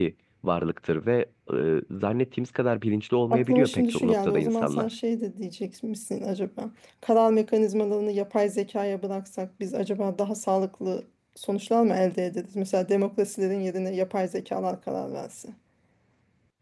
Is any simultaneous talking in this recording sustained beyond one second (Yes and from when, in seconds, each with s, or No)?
Yes, from 3.3 s